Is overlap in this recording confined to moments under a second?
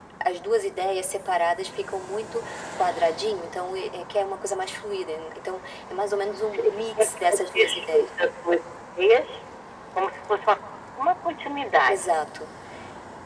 No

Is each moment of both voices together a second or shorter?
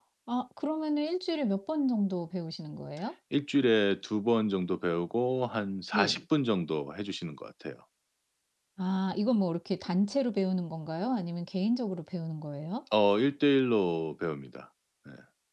Yes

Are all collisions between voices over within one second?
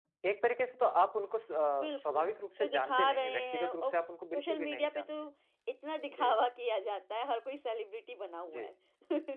No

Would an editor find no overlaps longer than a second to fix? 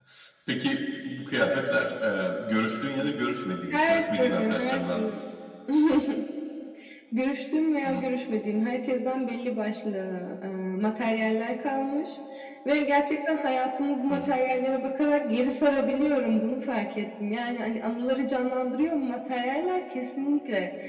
No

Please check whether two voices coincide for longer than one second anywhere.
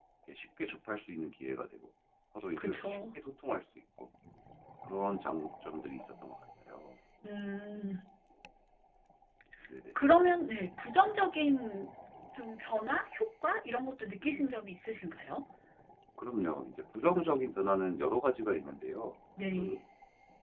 No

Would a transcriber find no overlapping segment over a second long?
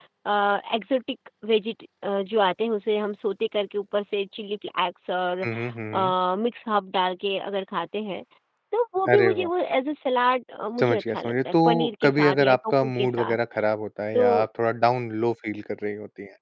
No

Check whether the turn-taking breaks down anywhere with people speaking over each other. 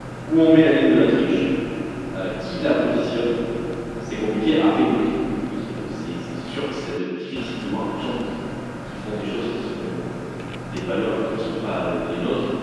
No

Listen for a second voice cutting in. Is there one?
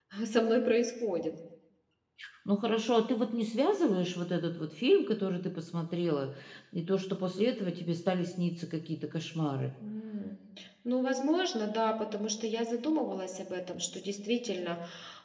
No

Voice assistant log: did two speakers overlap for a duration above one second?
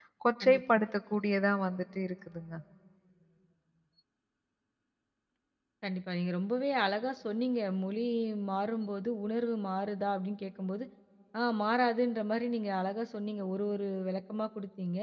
No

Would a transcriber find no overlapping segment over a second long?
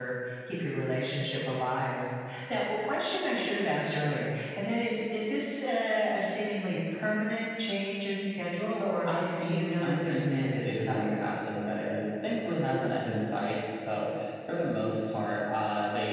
No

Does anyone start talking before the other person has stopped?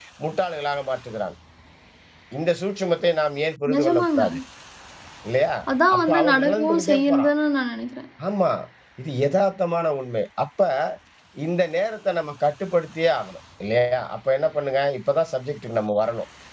Yes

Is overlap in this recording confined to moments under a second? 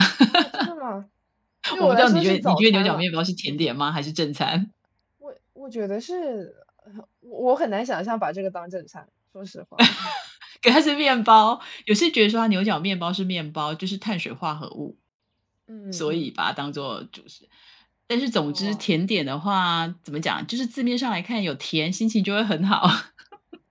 No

